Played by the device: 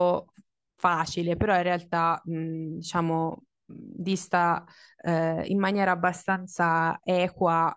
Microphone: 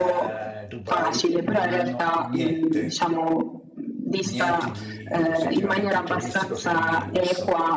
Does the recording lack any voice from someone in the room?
No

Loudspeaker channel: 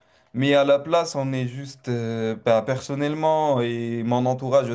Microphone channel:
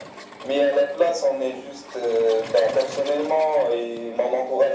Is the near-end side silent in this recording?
Yes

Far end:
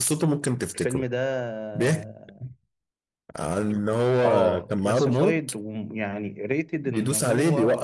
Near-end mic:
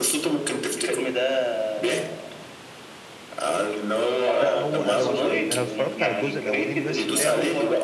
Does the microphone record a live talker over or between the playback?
Yes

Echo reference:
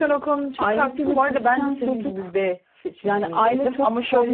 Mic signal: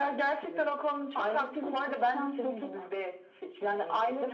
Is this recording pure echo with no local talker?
Yes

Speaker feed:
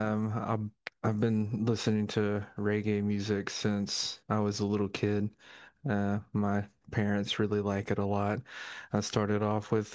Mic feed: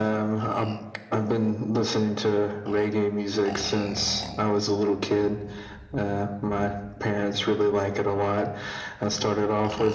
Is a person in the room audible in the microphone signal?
No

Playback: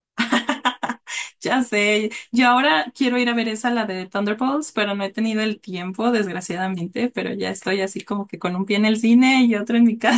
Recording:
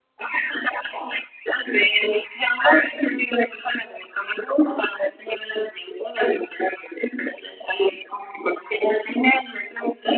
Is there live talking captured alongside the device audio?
No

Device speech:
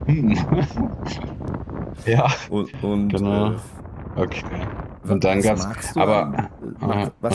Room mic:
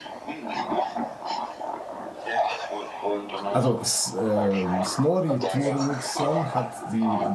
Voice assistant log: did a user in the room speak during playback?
Yes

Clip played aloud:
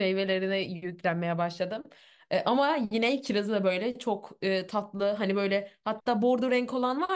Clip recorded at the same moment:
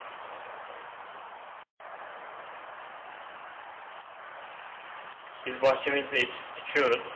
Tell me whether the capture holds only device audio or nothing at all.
No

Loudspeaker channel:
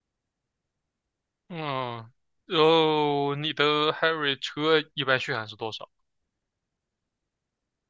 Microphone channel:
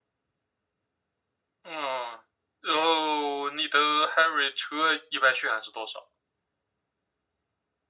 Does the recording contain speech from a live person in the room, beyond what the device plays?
No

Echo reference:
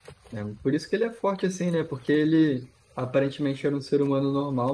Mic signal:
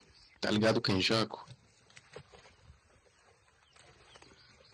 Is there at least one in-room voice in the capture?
Yes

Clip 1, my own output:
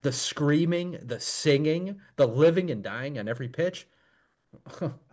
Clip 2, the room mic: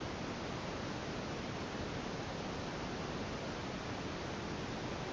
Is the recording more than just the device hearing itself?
No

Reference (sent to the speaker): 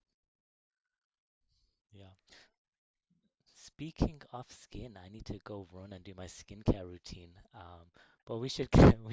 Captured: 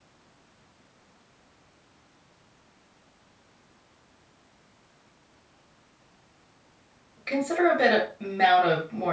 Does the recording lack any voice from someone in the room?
No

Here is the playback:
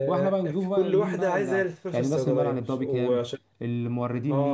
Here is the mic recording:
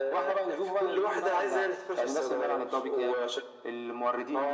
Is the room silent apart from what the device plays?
Yes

